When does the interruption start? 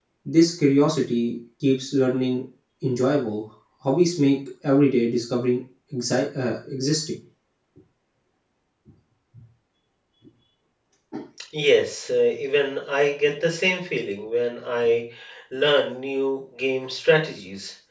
none

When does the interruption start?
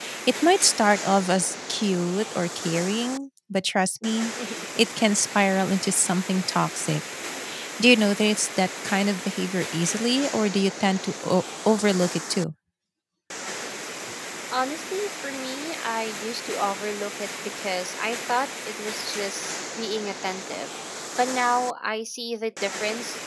none

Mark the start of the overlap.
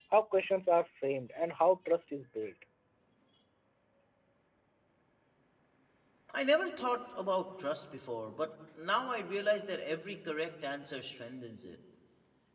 none

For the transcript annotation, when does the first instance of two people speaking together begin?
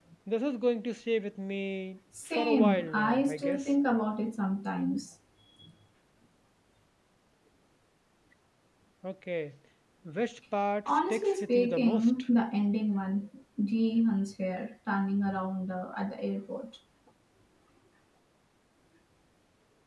2.3 s

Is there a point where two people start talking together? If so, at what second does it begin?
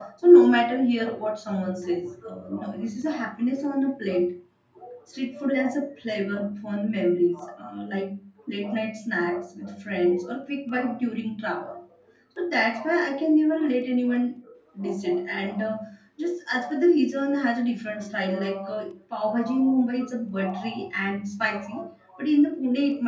none

